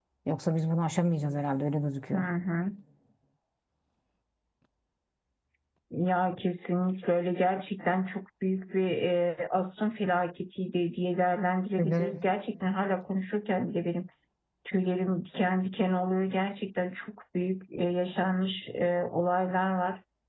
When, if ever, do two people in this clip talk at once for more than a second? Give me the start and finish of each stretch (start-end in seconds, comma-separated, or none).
none